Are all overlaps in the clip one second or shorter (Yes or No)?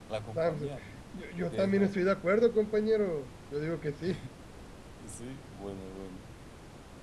Yes